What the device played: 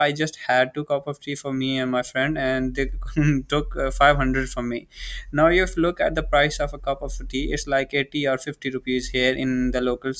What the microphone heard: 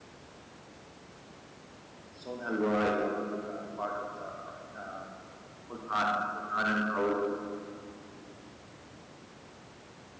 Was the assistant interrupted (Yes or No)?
Yes